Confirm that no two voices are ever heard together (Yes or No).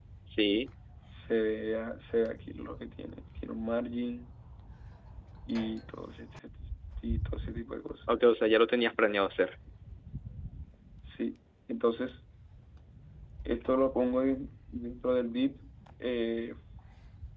Yes